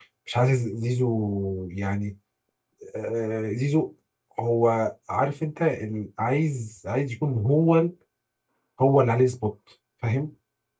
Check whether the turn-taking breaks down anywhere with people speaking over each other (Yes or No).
No